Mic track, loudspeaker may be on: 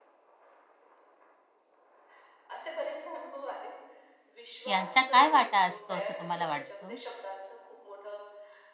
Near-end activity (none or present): present